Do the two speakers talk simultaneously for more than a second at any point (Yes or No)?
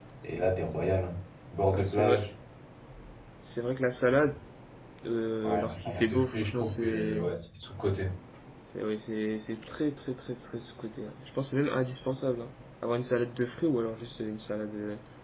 Yes